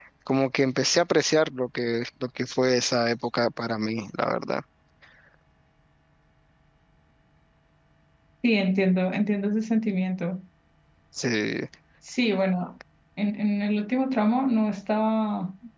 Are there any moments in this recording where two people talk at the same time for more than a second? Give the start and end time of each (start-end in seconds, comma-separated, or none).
none